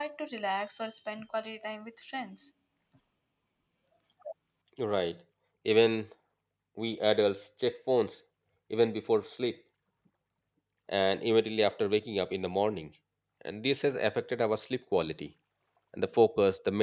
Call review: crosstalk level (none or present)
none